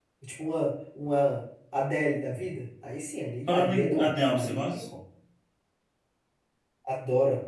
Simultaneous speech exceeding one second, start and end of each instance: 3.5-4.8

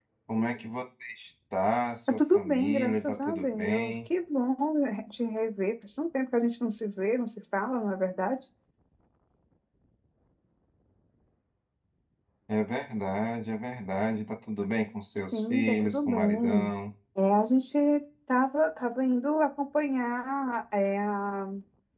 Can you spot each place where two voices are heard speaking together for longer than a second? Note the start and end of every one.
2.1-4.1, 15.2-16.7

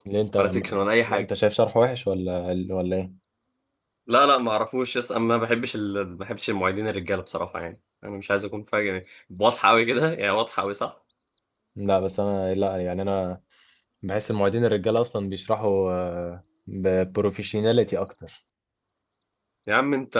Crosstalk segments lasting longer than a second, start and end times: none

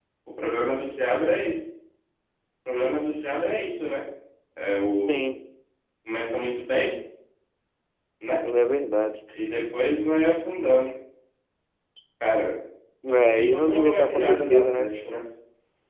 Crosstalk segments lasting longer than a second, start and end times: 13.3-14.9

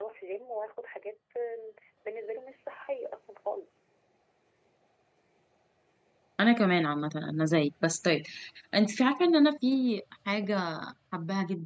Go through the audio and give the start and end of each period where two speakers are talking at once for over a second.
none

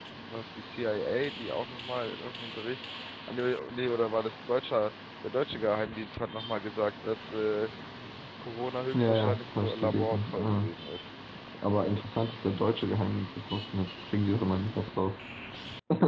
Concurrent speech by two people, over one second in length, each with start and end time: 8.9-10.7

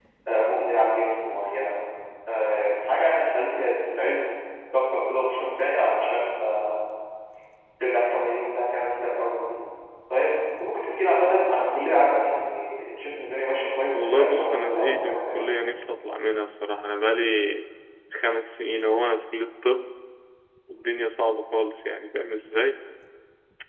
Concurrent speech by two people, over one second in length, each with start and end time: 13.9-15.5

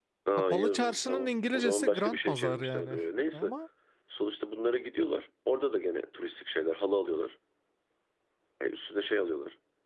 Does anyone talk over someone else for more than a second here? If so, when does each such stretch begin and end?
0.5-3.0

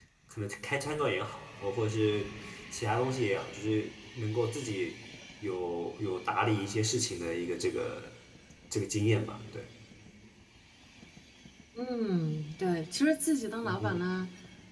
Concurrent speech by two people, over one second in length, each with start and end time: none

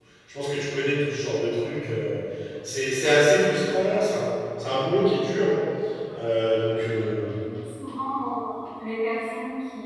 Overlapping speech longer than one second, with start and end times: none

